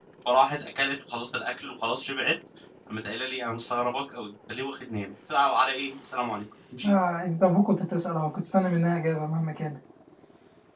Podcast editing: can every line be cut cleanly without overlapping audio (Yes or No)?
Yes